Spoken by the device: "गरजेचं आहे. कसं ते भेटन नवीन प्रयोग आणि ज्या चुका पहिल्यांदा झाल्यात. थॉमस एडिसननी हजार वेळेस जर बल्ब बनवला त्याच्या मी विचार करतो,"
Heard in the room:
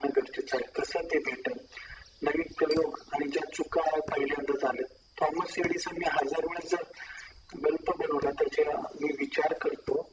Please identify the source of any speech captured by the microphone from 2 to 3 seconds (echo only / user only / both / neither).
echo only